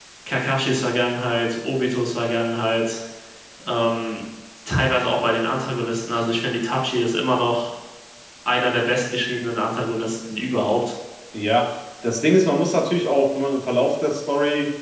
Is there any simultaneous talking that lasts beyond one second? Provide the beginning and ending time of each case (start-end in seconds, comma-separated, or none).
none